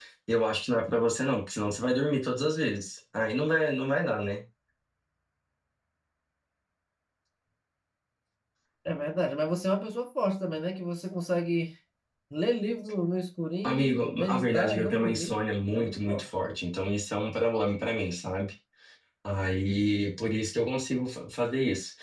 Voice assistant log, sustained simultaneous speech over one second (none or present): present